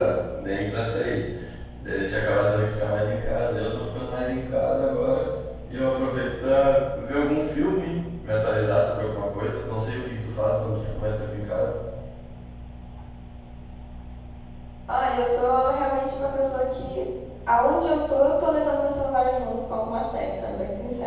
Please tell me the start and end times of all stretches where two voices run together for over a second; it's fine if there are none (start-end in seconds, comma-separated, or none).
none